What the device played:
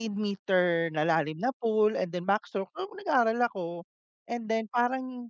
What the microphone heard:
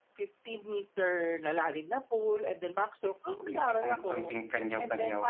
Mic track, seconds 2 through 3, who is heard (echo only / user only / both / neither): echo only